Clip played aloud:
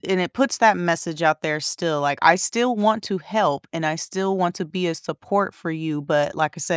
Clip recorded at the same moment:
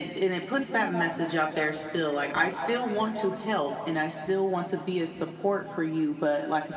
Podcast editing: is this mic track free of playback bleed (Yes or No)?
No